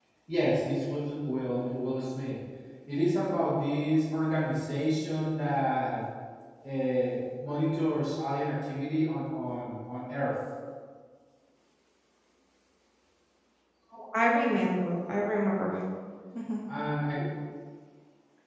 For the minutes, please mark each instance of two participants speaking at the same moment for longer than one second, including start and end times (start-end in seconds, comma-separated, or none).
none